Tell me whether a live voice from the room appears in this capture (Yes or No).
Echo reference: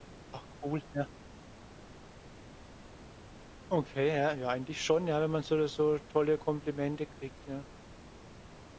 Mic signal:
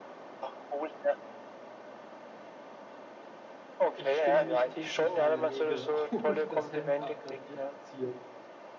Yes